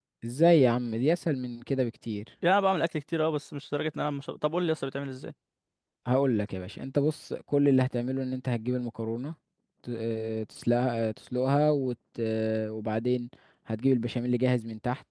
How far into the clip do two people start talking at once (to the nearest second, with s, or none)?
none